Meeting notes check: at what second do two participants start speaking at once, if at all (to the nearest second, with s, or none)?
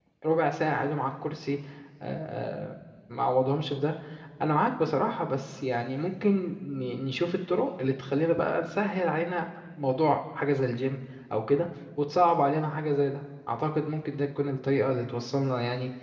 none